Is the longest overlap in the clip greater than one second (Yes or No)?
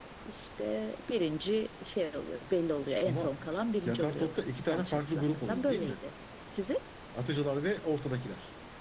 Yes